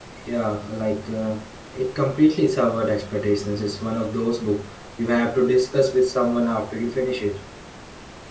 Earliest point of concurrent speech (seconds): none

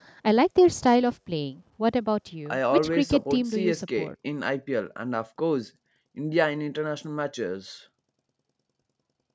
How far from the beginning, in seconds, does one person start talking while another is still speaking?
2.5 s

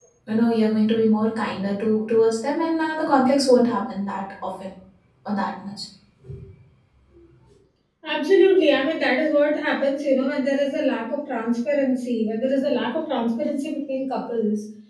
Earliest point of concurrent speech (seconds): none

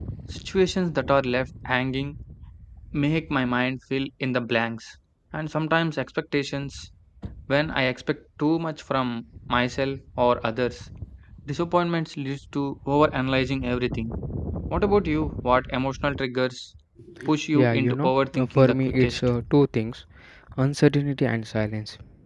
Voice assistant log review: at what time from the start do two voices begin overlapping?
17.5 s

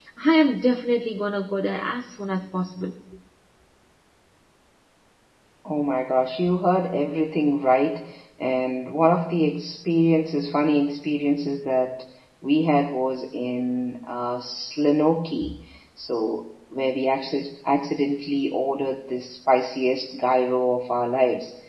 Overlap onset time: none

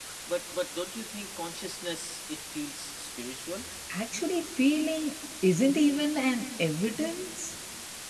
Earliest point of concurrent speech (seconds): none

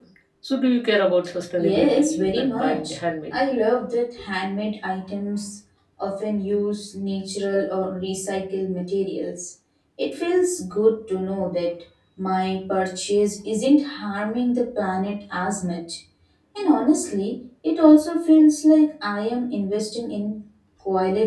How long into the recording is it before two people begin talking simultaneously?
1.6 s

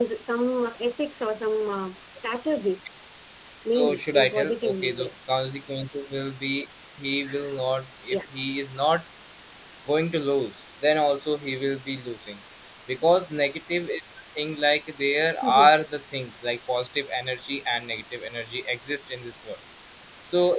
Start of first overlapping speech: 3.8 s

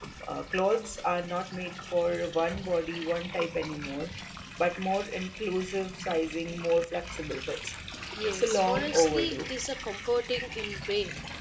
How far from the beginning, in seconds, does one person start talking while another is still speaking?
8.2 s

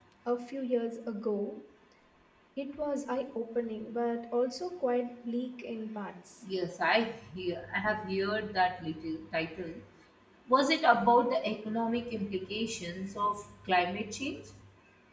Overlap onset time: none

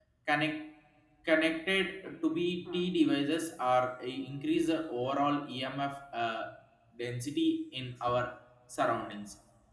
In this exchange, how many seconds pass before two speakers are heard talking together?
none

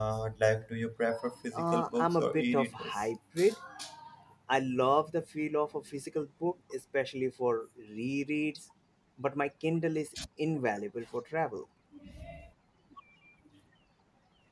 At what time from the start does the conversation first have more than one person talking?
1.5 s

